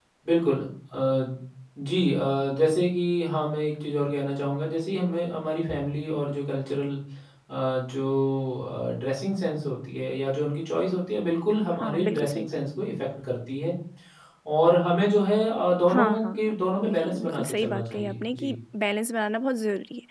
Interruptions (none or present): present